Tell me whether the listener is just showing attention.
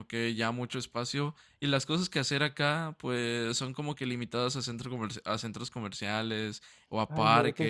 No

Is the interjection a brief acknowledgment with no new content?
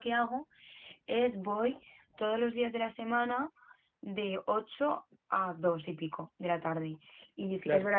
Yes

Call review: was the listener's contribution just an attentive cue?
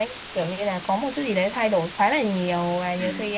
Yes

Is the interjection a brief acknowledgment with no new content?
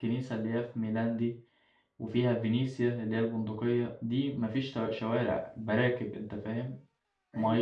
No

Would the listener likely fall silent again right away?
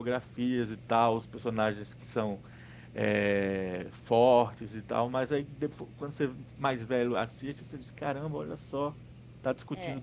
No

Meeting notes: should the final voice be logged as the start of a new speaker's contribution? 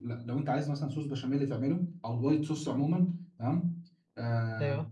No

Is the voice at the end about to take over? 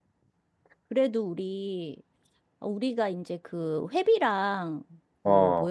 No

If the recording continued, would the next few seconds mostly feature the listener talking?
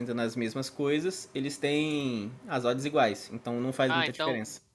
Yes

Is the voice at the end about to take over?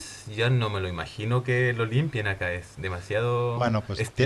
Yes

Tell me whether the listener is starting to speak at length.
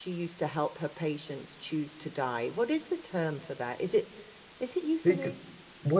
Yes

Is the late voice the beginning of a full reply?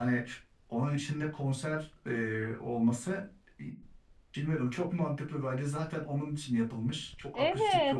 Yes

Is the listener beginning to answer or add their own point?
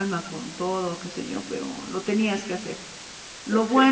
No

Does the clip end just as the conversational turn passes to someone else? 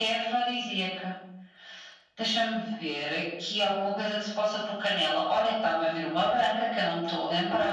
Yes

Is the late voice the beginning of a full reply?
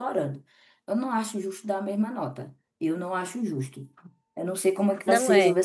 Yes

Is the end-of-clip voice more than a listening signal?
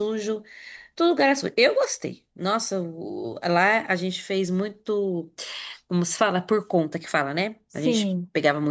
No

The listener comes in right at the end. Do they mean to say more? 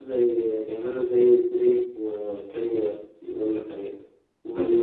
No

